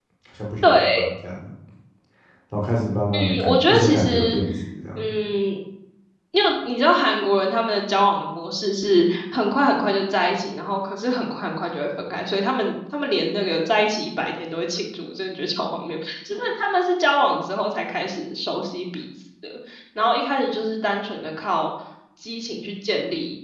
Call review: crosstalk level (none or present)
present